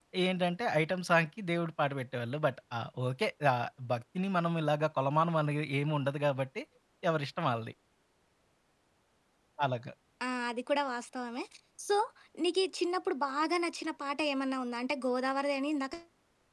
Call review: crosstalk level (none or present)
none